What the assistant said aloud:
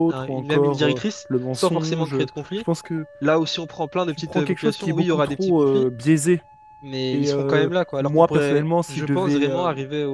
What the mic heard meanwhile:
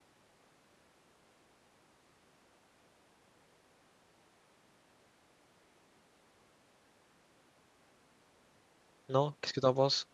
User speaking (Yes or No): Yes